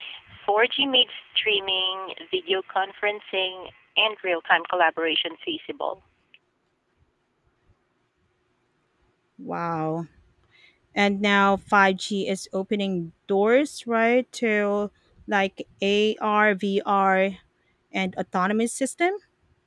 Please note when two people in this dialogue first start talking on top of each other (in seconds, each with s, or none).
none